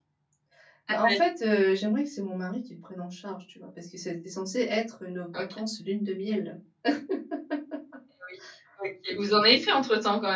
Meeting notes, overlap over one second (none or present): none